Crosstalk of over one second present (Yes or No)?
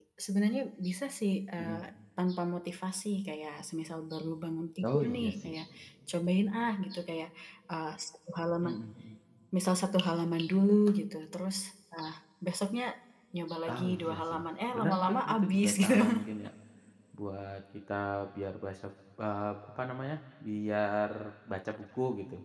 Yes